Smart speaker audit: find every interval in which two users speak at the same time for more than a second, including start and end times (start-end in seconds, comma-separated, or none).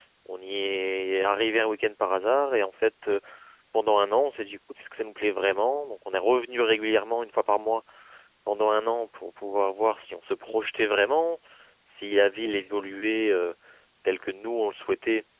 none